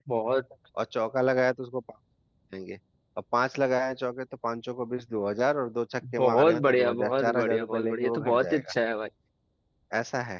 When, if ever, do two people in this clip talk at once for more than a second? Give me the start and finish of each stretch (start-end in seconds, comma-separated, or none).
6.2-8.6